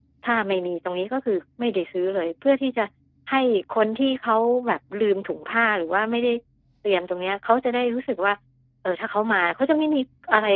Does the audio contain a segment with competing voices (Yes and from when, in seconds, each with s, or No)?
No